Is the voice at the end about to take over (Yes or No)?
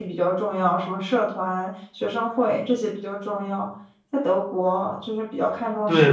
Yes